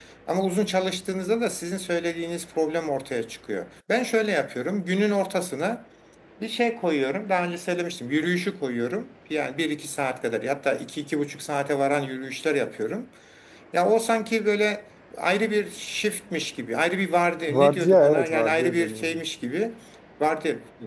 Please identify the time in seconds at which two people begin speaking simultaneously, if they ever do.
17.5 s

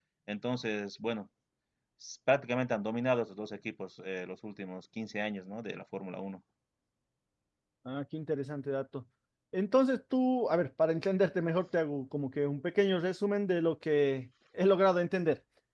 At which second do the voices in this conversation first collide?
none

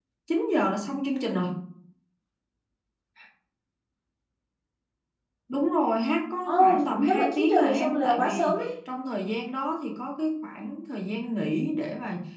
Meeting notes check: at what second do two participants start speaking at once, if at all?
6.5 s

